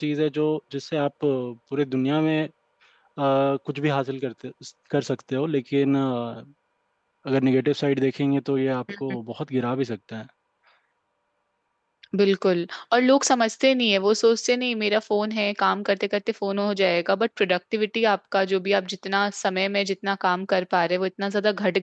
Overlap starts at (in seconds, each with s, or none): none